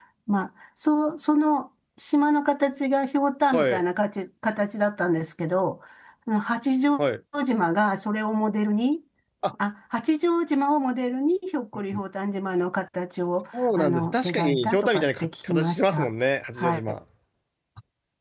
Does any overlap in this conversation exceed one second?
Yes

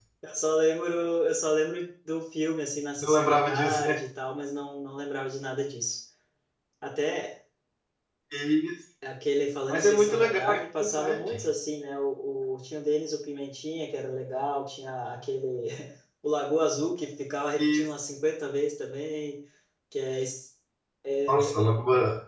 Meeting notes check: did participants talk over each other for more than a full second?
Yes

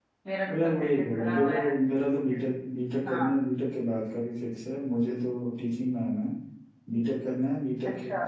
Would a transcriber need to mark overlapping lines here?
Yes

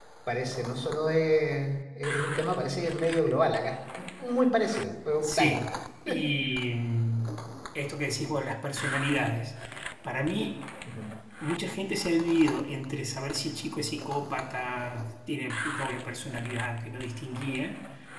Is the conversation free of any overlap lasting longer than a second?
Yes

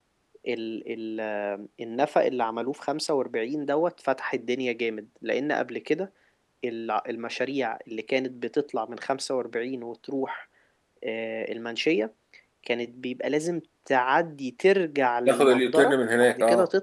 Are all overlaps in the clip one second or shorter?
No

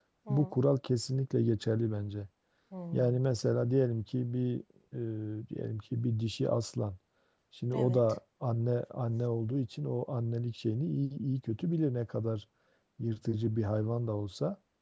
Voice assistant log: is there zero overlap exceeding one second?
Yes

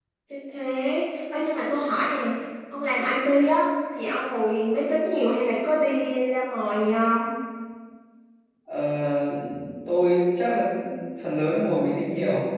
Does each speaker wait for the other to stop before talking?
Yes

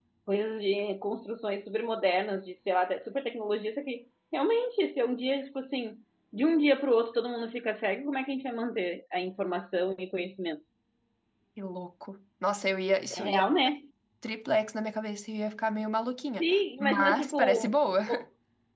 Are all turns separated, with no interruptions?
No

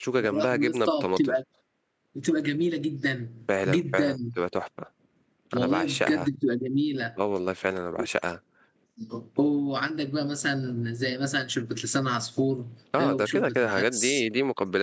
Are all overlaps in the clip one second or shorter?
No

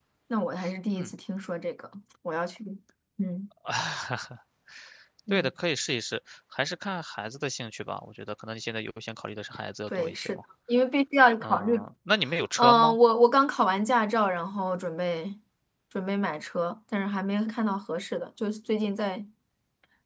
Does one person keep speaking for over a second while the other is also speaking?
No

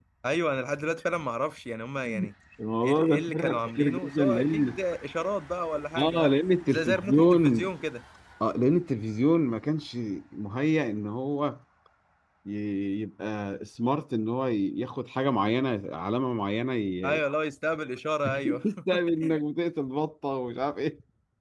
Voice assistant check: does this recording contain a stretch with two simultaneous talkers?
Yes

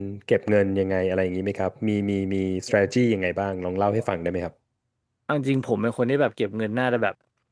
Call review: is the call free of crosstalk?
Yes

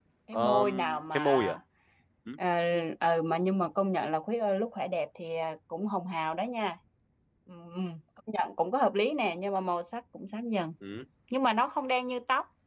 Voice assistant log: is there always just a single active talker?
No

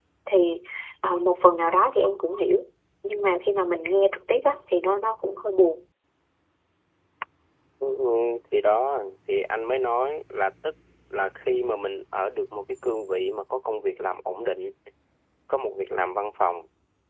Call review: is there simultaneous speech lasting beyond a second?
No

